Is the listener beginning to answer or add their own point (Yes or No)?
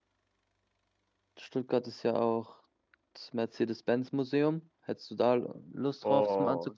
Yes